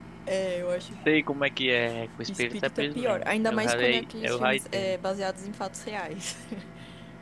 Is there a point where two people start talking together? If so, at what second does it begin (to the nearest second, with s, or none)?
2 s